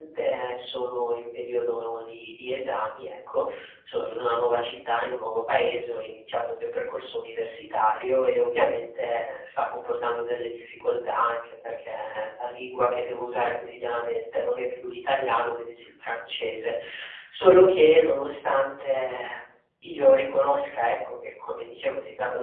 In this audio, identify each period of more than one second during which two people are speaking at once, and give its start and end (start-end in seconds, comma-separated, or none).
none